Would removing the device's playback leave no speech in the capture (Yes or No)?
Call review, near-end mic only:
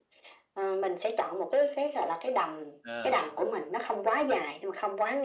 No